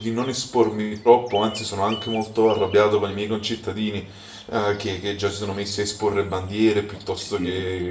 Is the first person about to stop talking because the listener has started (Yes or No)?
No